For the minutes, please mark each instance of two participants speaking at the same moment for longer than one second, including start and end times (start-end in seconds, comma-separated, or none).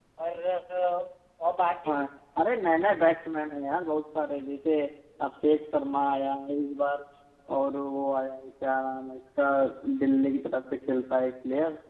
none